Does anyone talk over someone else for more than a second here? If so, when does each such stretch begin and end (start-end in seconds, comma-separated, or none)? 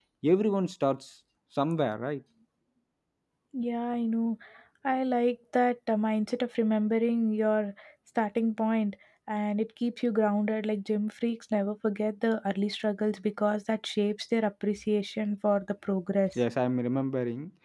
none